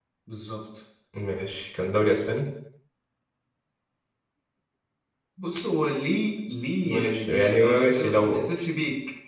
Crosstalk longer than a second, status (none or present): present